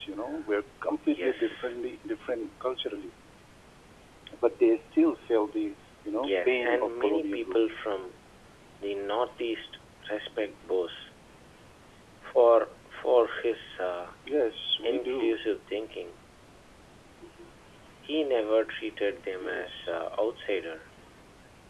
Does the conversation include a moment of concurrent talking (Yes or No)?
Yes